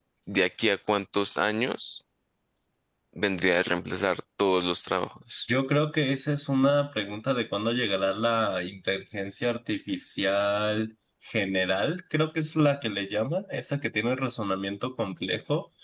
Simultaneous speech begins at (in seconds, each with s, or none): none